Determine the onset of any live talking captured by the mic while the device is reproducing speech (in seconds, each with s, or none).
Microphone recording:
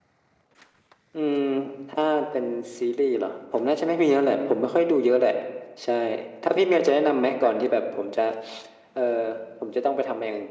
none